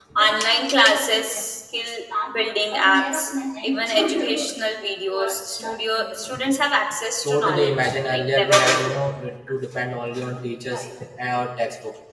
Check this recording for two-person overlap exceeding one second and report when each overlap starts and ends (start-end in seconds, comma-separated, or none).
7.2-9.0